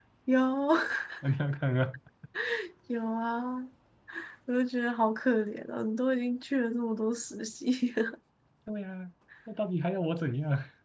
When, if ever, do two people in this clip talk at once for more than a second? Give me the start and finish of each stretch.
none

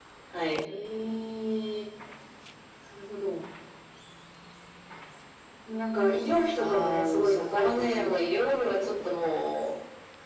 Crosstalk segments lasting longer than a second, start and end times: 6.6-8.3

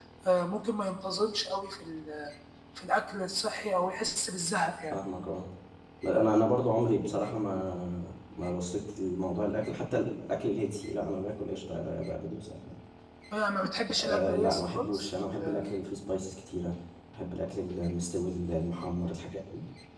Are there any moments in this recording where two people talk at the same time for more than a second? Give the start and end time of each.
14.0-15.6

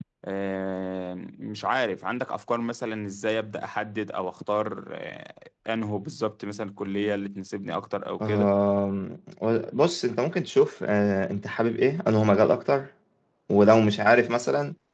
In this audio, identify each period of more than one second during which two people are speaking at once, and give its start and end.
none

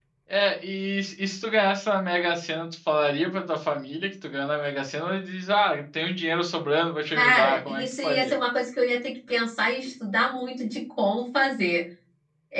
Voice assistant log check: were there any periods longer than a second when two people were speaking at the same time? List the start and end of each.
7.1-8.3

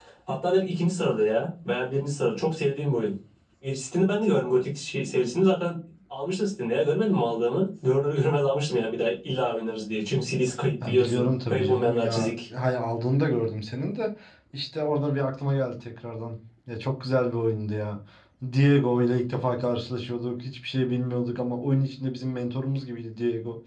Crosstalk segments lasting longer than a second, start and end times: 10.9-12.3

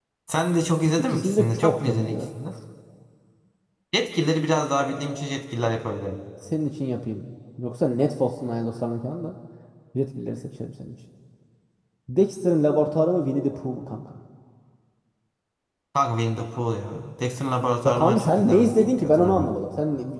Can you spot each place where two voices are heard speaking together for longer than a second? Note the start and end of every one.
0.8-2.2, 17.8-19.5

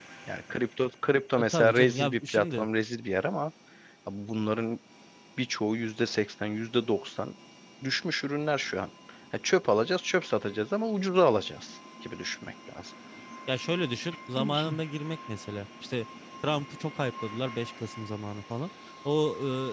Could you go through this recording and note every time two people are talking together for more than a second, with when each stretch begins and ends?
1.4-2.7

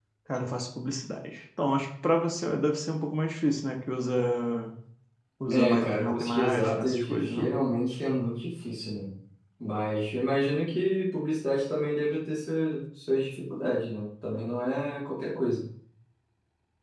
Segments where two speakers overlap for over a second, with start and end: 5.5-7.5

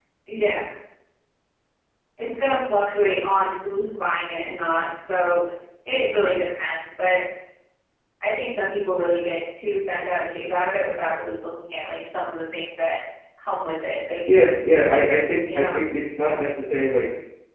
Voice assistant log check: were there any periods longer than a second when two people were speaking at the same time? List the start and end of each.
none

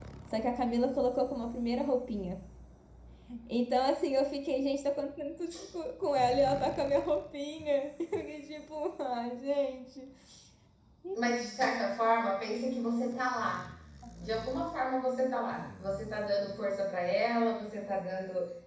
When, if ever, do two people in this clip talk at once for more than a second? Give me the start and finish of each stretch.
none

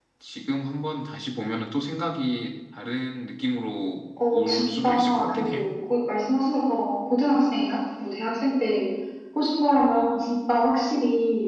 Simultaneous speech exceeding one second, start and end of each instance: 4.3-5.7

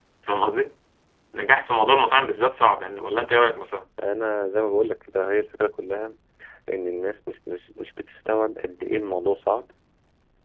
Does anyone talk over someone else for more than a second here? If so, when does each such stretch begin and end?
none

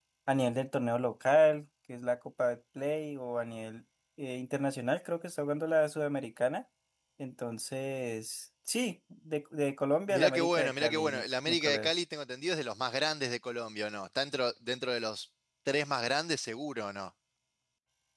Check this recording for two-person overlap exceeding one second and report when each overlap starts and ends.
10.1-11.9

